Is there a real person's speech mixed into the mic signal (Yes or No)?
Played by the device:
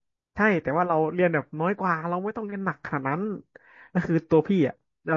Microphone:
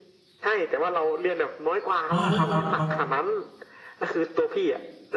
Yes